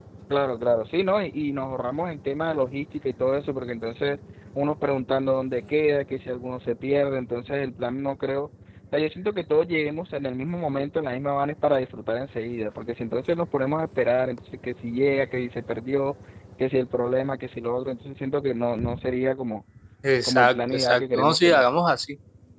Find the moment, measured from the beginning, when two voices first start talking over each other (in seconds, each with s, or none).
20.2 s